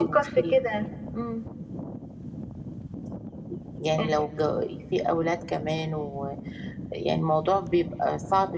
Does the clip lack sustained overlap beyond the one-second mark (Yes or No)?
Yes